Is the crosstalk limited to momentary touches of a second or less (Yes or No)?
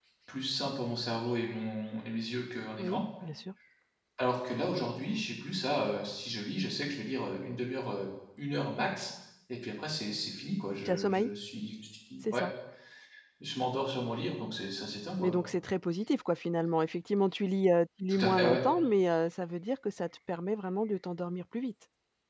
Yes